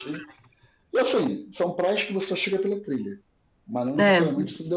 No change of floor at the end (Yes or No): Yes